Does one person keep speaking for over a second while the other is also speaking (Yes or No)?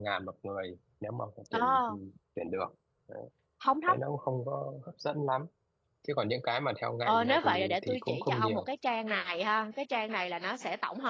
Yes